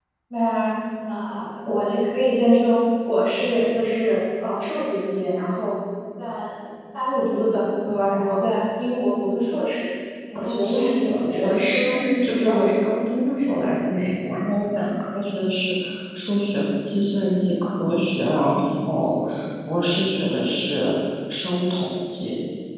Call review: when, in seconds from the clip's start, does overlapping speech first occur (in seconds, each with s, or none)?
10.3 s